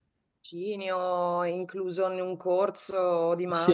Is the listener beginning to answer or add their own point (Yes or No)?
Yes